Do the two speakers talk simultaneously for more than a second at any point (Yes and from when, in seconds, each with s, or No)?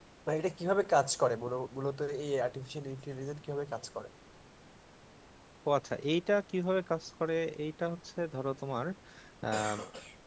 No